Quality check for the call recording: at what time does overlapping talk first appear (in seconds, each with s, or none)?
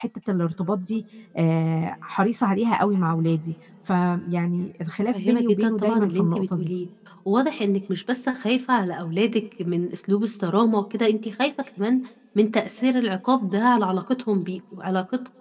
5.1 s